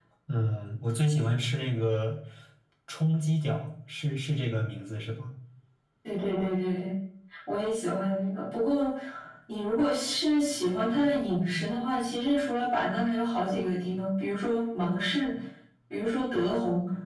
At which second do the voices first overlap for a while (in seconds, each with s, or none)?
none